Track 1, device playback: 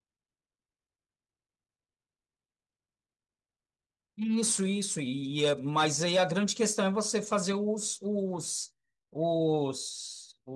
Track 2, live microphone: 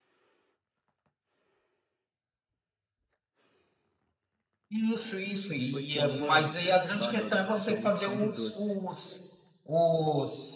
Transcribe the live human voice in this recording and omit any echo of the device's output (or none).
pô, tinha uma. eh, Te falar que eu t- eu sou muito fã de doce.